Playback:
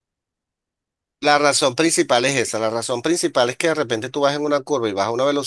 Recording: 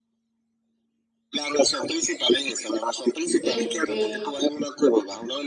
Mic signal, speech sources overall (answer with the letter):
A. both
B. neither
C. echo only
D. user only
A